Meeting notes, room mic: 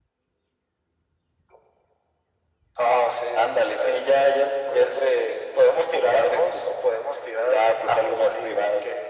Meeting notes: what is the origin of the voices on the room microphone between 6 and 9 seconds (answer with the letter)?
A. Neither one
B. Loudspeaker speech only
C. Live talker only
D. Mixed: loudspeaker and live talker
B